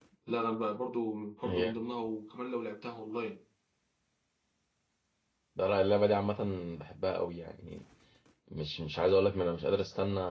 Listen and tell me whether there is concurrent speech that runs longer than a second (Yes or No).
No